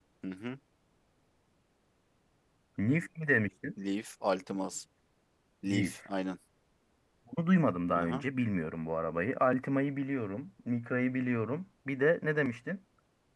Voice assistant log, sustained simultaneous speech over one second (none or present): none